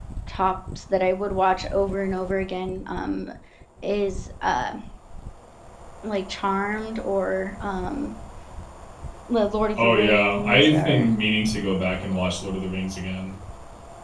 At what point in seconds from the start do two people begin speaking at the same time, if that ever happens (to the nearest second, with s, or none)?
10 s